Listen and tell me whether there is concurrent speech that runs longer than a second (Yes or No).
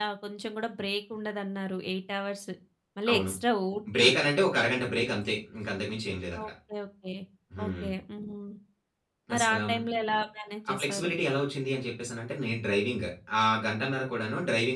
No